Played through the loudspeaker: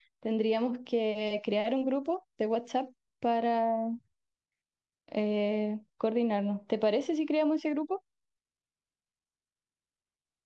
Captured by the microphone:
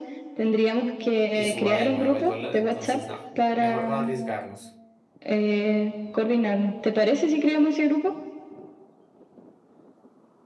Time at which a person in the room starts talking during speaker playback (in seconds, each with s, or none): 1.3 s